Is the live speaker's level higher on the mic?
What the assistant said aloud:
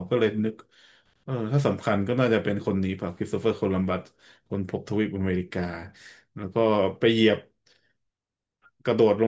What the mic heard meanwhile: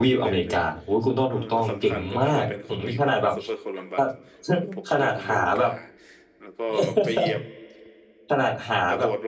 Yes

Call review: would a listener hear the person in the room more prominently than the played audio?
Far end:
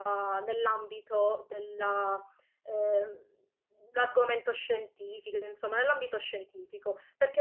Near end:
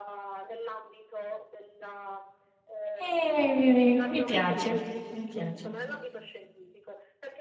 Yes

